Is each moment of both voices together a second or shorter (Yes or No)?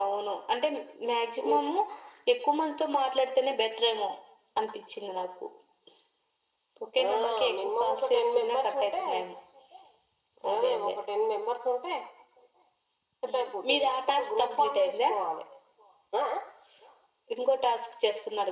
No